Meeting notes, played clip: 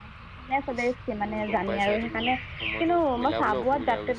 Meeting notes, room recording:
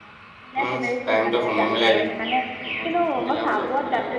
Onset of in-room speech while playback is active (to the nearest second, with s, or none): 1 s